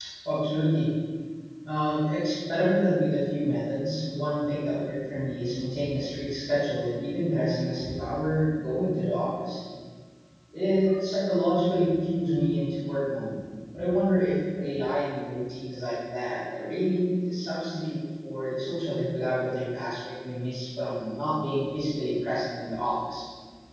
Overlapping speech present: No

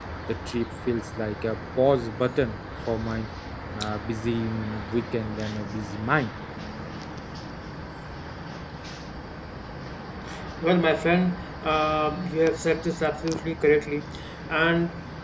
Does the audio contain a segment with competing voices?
No

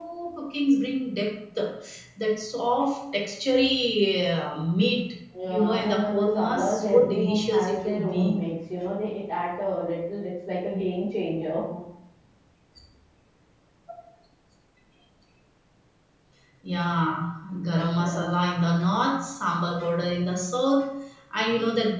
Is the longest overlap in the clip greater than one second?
Yes, from 5.5 s

